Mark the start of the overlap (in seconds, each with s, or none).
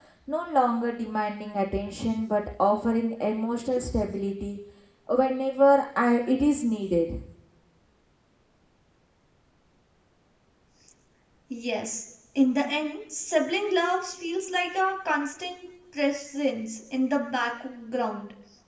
none